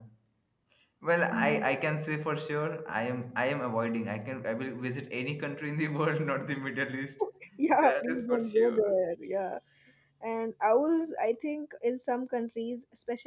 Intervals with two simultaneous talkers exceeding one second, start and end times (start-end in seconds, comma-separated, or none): 7.7-8.9